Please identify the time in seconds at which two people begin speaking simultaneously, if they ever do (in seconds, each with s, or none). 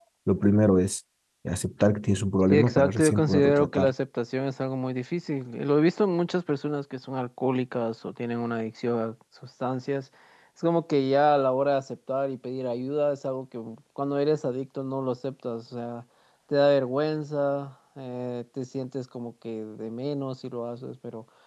2.5 s